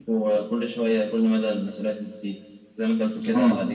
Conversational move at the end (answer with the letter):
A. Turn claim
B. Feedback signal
B